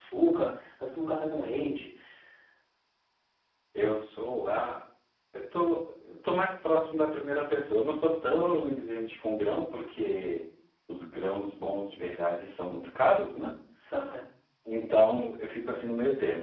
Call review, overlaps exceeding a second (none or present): none